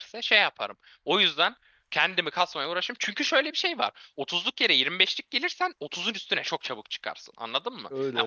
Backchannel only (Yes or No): Yes